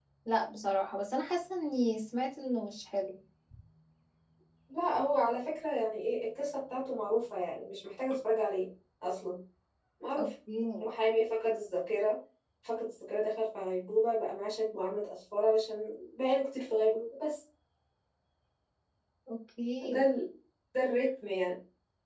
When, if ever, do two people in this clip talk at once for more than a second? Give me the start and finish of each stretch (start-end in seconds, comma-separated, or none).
none